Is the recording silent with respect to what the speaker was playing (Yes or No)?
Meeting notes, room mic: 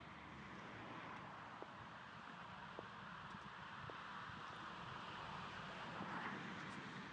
Yes